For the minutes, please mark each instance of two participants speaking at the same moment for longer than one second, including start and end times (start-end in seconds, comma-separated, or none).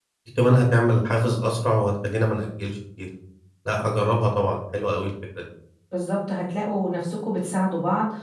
none